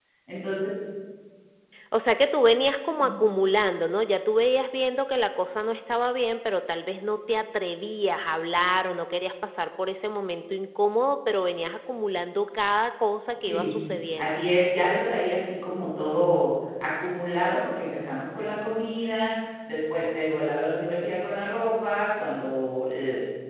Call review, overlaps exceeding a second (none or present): none